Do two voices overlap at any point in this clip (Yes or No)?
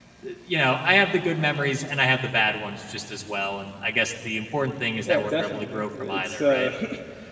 Yes